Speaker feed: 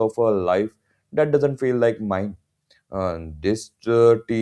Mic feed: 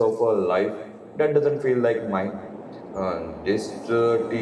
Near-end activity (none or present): none